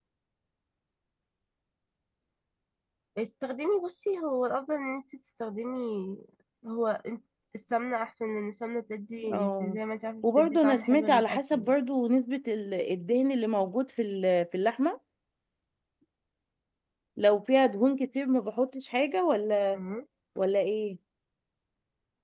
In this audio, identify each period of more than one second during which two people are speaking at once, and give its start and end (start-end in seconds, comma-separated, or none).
10.2-11.7